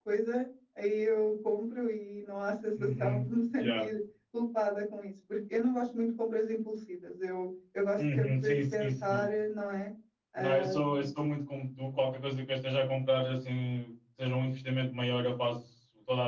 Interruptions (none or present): present